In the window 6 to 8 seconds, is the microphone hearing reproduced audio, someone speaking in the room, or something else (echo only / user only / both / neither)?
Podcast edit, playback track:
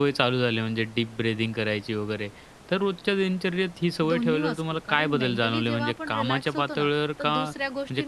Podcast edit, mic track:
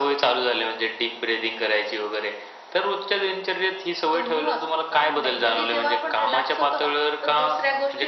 echo only